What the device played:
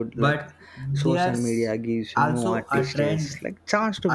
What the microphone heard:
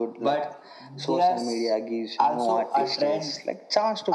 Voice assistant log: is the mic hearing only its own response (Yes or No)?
Yes